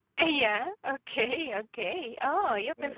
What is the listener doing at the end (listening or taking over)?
taking over